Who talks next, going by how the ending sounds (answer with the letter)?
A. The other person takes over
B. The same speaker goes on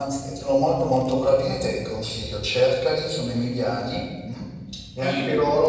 B